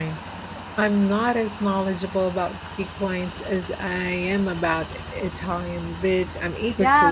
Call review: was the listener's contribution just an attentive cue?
No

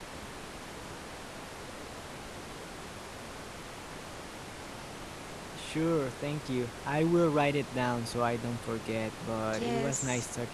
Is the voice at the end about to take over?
Yes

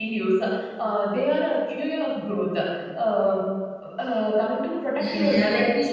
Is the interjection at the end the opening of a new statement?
Yes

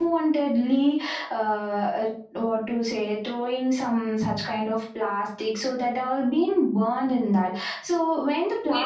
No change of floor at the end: No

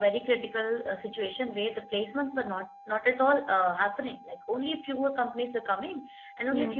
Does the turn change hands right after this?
No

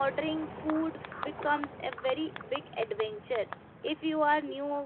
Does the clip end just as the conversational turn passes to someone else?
No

